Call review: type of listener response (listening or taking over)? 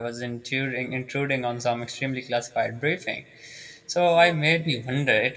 listening